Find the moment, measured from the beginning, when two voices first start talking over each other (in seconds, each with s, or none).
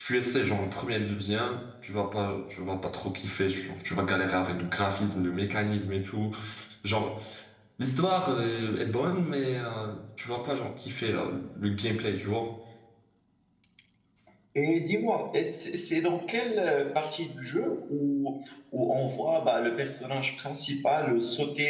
none